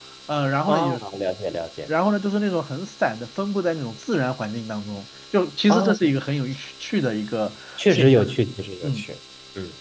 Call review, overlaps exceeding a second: none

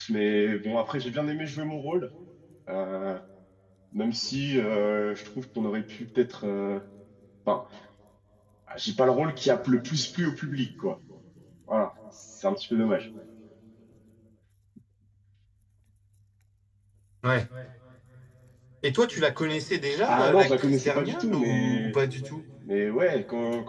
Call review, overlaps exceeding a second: present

